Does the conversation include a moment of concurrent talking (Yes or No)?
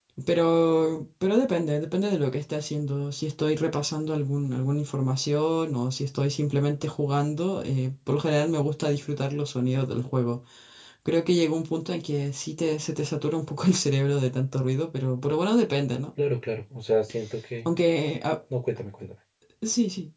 No